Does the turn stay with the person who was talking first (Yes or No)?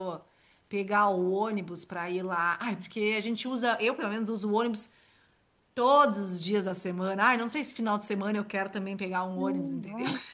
No